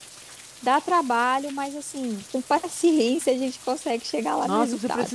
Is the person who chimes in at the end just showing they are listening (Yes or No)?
No